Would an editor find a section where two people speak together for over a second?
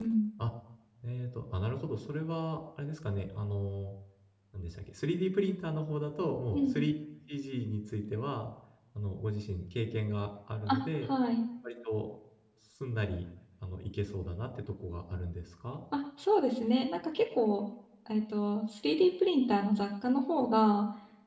No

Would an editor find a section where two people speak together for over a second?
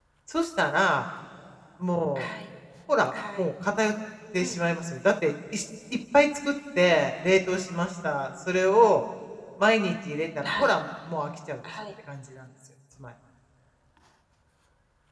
No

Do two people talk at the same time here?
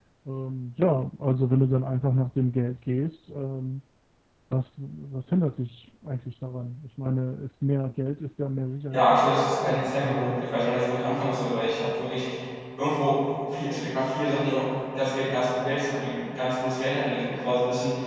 Yes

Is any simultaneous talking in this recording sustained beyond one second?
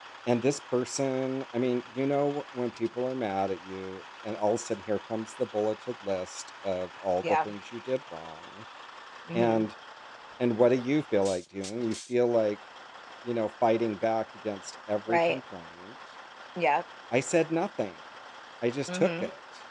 No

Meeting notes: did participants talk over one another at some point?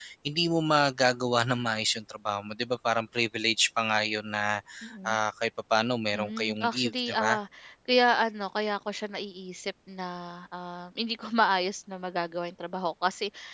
Yes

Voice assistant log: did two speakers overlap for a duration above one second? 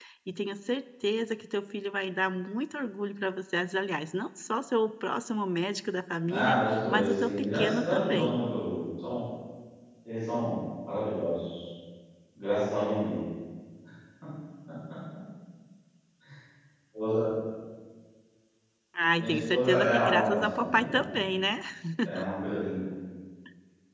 Yes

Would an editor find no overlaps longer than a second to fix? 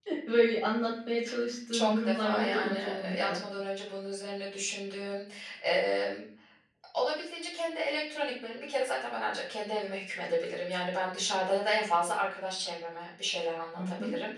No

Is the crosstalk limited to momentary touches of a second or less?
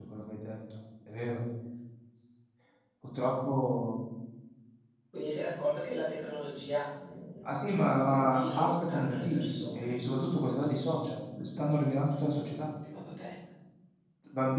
No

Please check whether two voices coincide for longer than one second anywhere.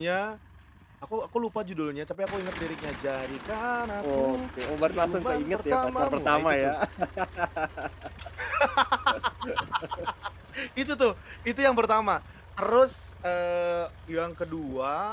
Yes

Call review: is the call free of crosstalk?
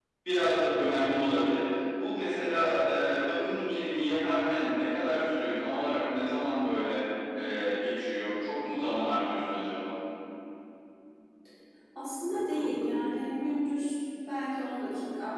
Yes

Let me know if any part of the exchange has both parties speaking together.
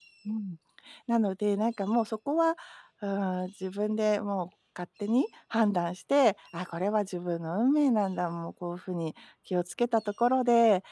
No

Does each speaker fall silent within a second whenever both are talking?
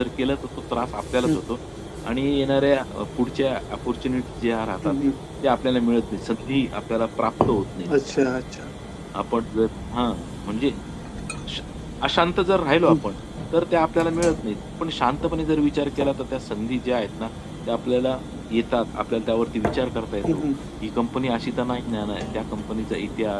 Yes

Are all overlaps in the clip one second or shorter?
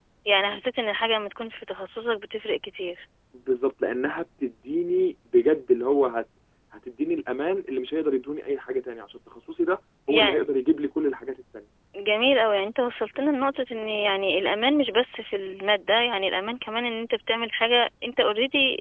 Yes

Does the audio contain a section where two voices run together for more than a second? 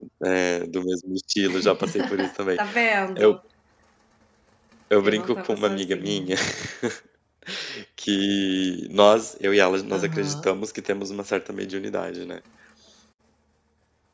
Yes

